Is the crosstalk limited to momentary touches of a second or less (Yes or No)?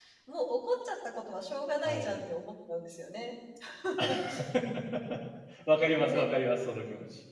Yes